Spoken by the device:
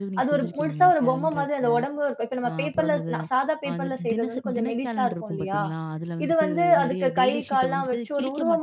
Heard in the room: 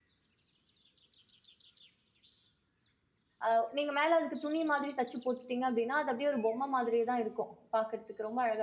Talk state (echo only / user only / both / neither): user only